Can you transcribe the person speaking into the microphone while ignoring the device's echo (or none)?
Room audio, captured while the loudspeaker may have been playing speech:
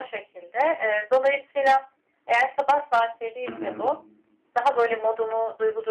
Hı hı.